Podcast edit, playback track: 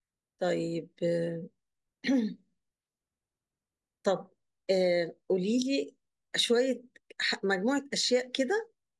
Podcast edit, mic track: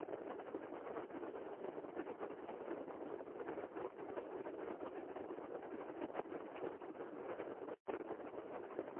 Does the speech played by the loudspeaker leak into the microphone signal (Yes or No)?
No